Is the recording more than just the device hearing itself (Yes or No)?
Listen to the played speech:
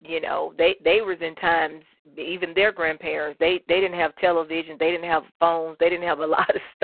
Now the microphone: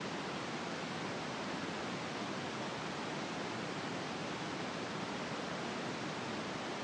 No